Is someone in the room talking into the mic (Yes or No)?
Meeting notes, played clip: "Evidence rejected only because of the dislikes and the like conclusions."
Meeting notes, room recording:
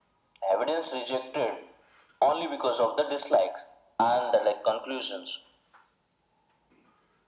No